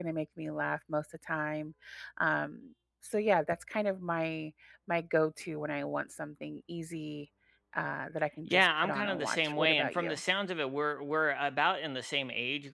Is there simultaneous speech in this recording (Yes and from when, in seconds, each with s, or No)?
Yes, from 8.5 s